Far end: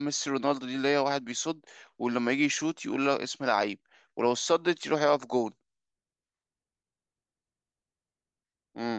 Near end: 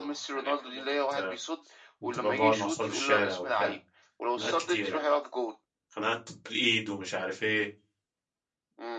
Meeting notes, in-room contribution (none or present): present